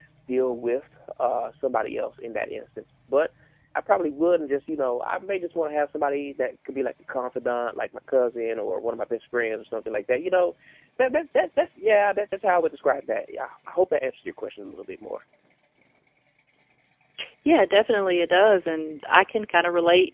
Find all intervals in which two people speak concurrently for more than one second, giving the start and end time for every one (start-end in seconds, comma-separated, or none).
none